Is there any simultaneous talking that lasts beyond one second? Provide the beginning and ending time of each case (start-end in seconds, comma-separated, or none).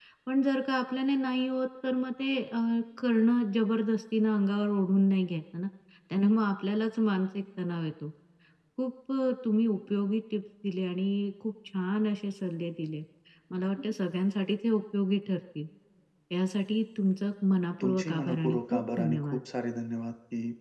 17.8-19.4